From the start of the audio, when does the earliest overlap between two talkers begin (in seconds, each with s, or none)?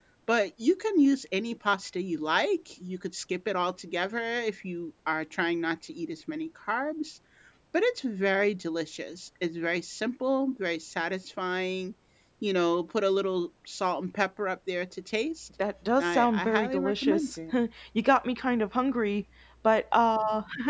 16.0 s